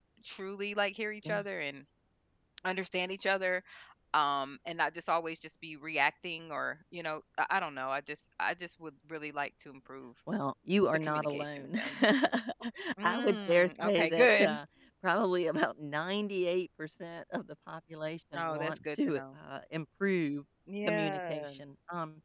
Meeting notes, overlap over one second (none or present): present